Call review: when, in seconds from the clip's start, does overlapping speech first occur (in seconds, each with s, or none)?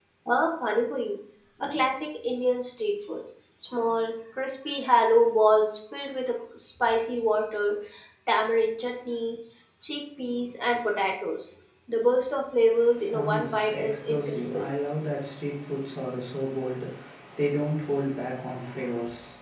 12.8 s